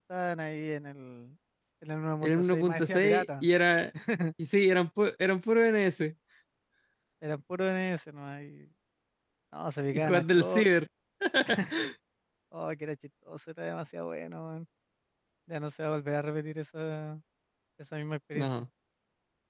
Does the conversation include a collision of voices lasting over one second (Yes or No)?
Yes